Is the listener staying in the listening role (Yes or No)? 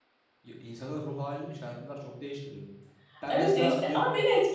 No